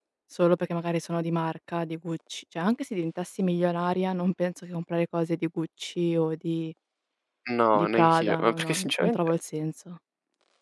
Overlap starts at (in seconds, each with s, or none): 7.8 s